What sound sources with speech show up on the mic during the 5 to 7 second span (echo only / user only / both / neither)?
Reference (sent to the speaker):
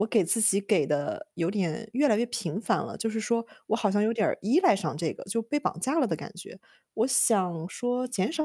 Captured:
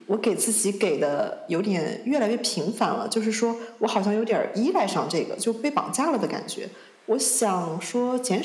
echo only